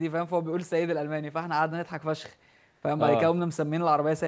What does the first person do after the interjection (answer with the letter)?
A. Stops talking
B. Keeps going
B